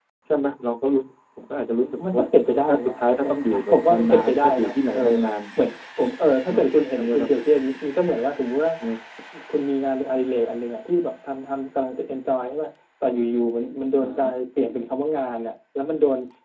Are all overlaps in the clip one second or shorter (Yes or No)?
No